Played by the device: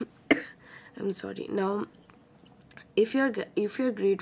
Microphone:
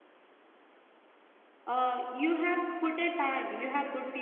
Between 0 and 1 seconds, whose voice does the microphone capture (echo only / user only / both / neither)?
neither